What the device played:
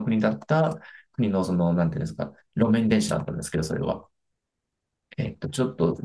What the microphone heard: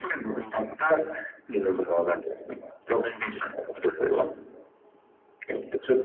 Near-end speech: none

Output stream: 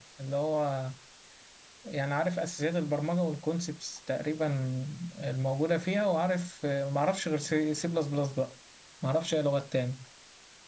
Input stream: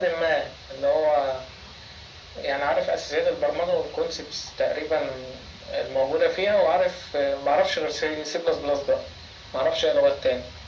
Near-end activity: none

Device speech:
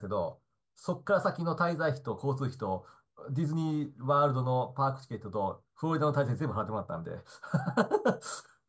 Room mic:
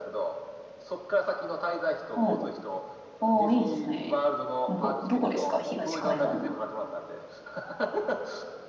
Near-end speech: present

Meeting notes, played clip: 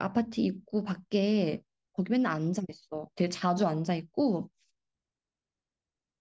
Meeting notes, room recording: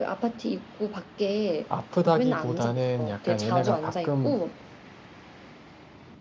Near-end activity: present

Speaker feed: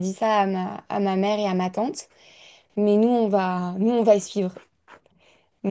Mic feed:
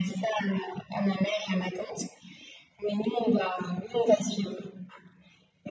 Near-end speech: none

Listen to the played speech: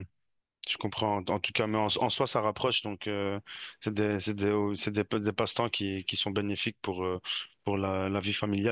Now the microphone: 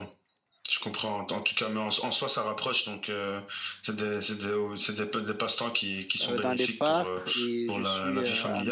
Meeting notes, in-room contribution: present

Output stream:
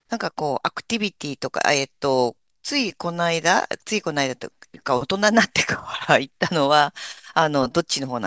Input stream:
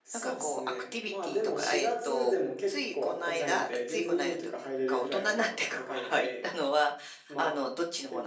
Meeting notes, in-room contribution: present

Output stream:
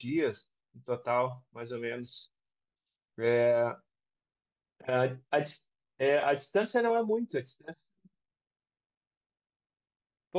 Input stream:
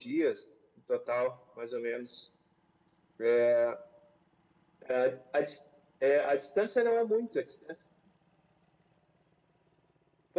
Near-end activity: none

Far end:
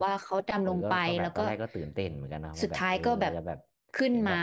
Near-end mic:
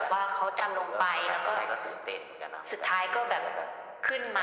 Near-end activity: none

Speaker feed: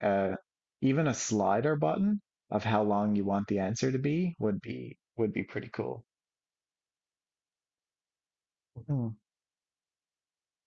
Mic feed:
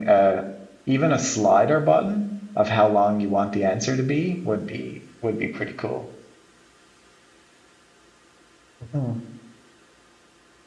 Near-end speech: none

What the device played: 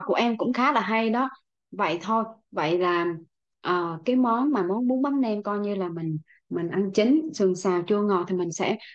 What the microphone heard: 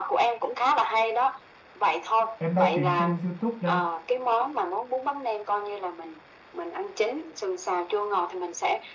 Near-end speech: present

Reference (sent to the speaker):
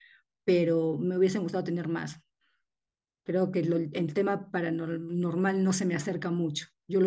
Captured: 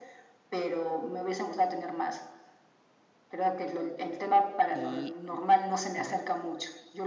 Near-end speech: present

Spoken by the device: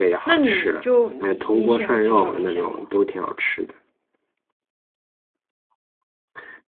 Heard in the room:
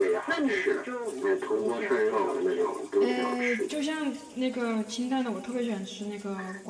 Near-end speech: present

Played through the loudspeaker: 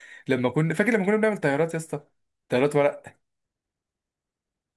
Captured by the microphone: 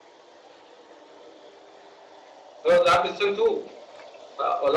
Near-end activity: present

